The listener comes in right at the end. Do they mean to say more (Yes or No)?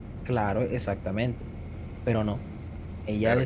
No